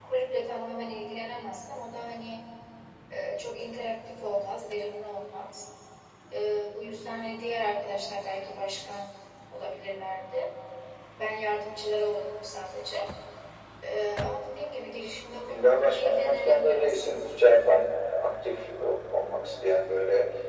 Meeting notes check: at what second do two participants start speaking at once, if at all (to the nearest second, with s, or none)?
15 s